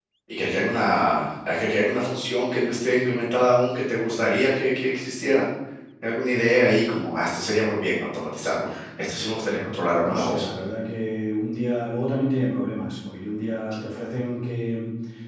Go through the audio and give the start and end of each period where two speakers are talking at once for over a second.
none

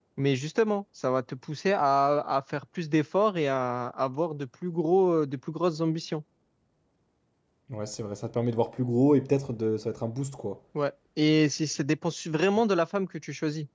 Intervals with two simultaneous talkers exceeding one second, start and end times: none

